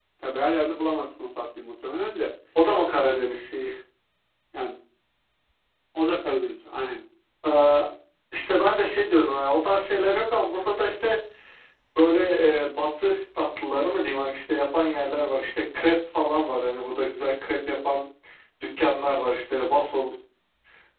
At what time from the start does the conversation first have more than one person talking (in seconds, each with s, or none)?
none